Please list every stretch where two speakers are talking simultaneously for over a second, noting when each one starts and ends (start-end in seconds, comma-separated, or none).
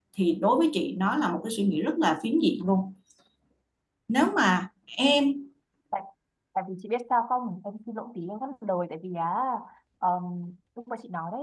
none